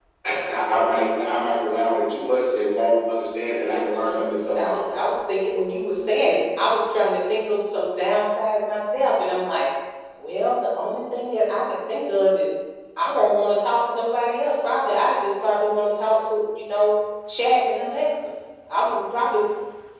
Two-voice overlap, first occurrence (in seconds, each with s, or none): 3.6 s